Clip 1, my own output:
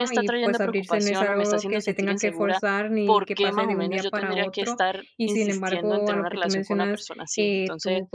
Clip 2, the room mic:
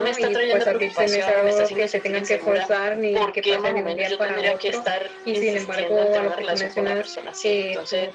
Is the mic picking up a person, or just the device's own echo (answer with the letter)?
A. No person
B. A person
A